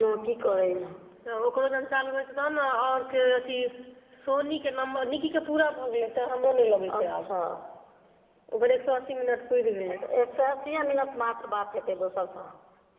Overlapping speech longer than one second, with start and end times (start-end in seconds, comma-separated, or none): none